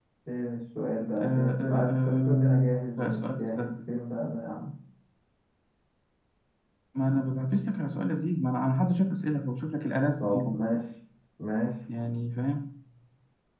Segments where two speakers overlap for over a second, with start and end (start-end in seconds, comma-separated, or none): 1.2-3.7